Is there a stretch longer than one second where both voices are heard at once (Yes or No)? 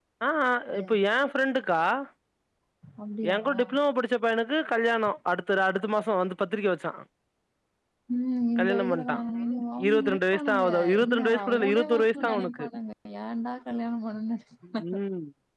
Yes